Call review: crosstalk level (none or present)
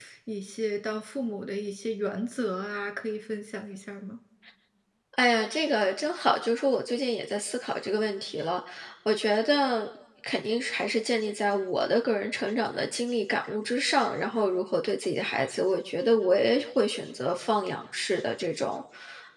none